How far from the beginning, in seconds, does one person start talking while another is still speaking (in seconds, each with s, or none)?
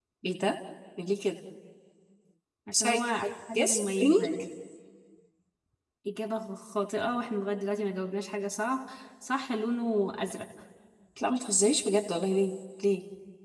2.7 s